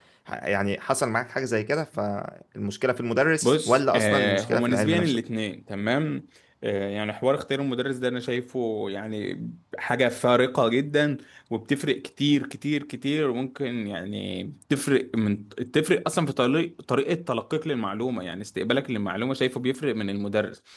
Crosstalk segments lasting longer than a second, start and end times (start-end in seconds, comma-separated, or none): 3.4-5.2